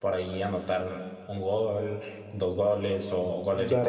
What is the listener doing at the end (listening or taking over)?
taking over